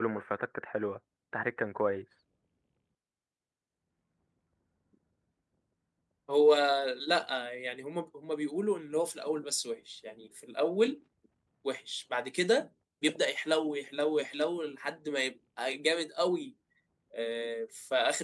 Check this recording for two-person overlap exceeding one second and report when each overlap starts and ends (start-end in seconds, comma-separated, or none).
none